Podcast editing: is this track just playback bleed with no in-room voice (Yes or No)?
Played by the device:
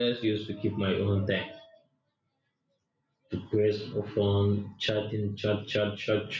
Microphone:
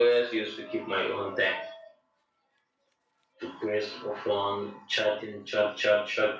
Yes